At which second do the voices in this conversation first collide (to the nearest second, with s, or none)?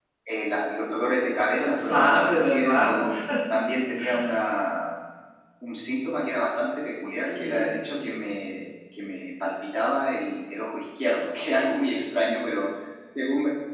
1 s